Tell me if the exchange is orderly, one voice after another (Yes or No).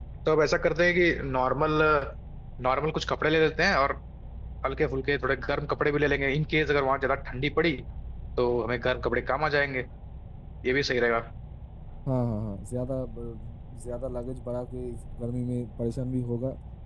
Yes